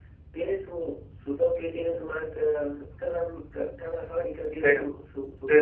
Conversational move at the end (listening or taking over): taking over